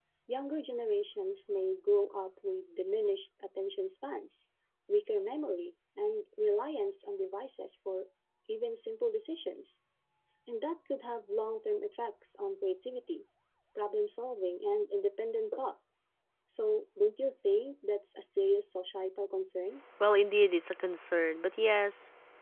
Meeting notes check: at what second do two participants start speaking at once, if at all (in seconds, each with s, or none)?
none